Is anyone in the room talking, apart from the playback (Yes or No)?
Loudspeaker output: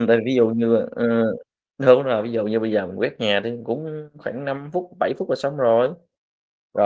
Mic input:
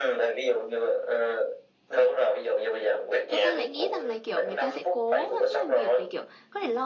Yes